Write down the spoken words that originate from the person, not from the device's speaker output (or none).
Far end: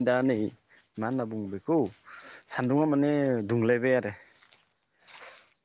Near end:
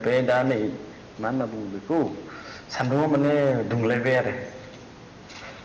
none